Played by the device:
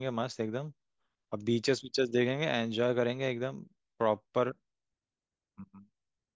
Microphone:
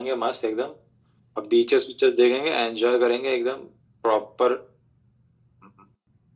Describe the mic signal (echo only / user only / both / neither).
echo only